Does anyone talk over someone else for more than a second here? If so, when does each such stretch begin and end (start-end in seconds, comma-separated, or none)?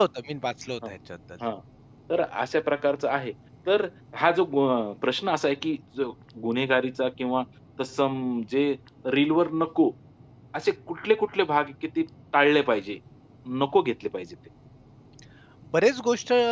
none